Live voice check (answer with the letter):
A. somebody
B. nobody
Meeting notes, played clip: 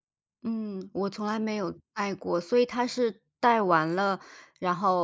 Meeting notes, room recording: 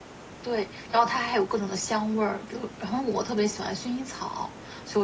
A